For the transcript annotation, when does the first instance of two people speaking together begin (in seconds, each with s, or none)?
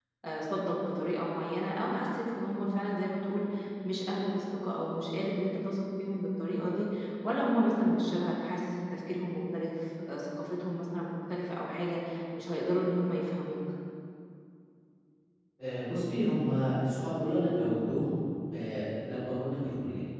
none